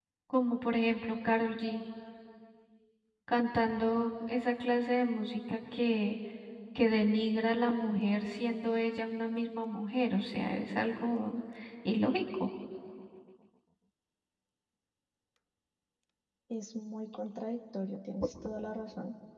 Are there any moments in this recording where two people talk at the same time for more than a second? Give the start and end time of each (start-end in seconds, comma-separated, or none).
none